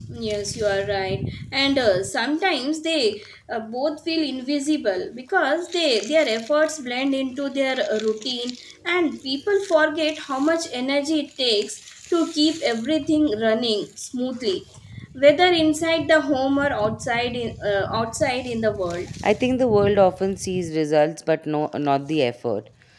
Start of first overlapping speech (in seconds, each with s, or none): none